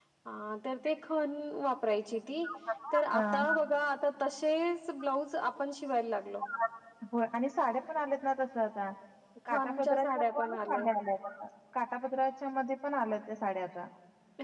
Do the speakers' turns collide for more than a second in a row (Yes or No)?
Yes